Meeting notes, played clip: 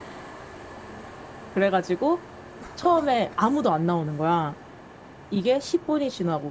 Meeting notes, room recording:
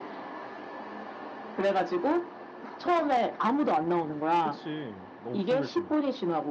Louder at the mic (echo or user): echo